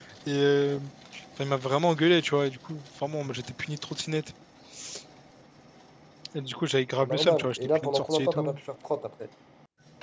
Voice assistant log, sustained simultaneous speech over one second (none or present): present